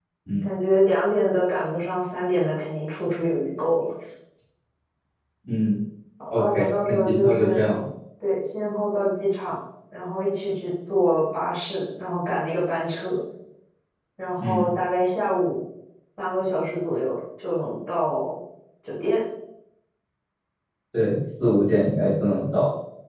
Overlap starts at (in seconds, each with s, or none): 6.3 s